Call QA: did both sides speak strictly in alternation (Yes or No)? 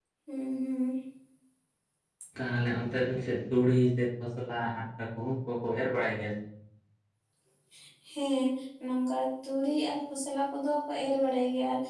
Yes